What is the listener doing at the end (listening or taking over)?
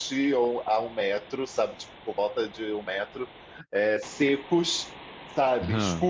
listening